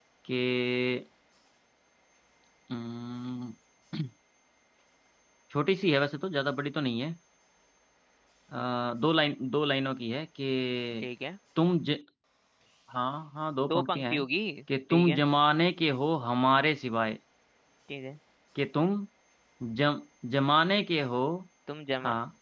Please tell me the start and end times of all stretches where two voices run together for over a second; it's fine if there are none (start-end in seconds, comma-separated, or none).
none